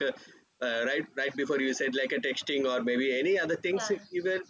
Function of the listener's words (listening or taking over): listening